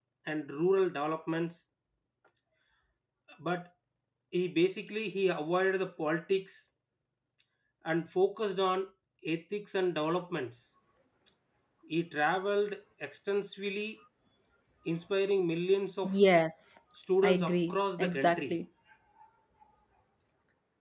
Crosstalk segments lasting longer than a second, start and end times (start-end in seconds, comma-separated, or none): 17.2-18.5